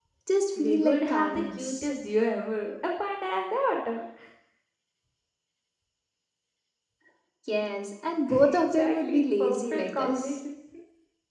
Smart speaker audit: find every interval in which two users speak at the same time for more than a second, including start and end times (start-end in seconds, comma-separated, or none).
0.6-1.9, 8.4-10.4